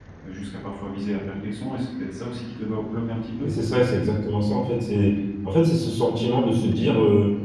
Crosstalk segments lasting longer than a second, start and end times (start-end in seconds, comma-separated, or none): none